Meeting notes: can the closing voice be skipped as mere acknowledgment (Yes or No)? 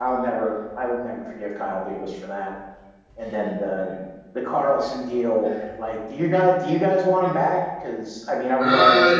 No